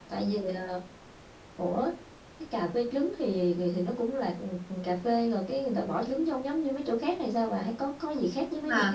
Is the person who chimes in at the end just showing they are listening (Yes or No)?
No